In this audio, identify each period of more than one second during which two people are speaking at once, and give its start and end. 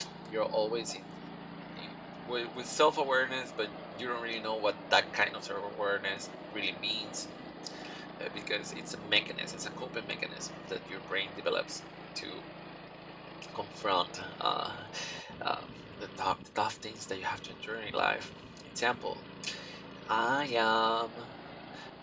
none

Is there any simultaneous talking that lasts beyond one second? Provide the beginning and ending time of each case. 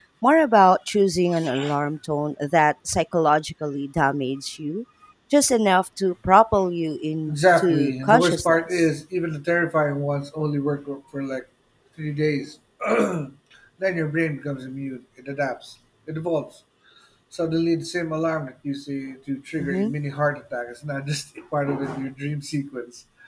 7.3-8.8

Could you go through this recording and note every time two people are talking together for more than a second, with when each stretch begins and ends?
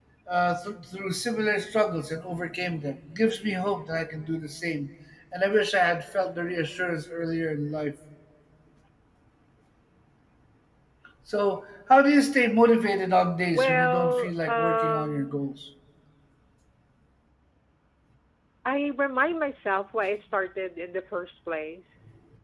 13.6-15.4

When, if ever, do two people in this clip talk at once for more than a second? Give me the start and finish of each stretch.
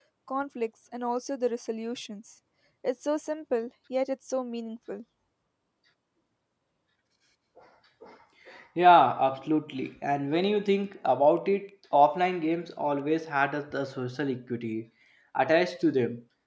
none

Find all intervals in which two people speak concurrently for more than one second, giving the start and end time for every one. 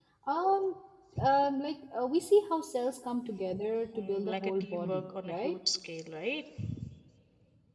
4.0-5.6

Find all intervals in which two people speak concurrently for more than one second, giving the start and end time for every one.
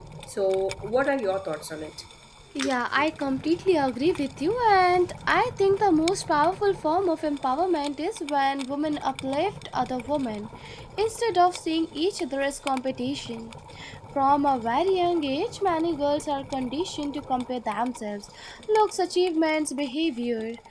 none

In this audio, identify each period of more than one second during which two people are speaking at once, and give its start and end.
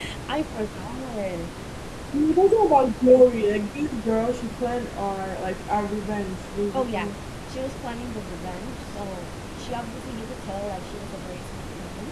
none

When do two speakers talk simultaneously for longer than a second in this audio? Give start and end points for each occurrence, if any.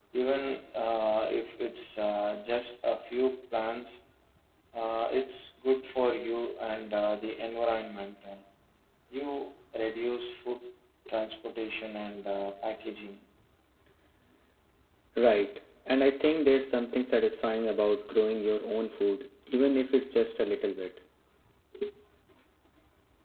none

